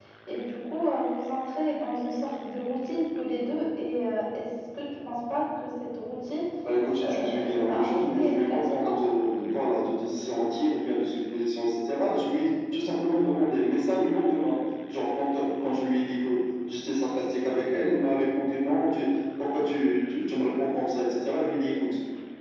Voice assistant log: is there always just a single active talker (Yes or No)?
No